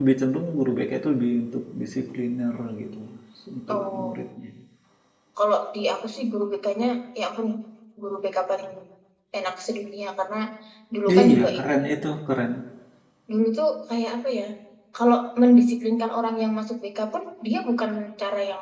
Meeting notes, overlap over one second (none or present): none